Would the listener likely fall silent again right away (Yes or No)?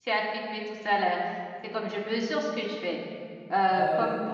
Yes